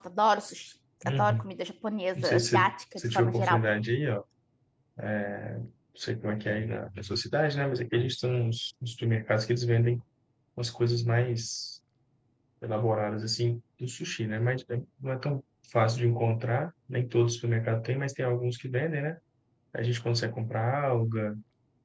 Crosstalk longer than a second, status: present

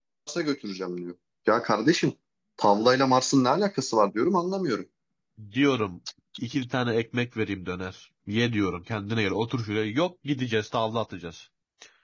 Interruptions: none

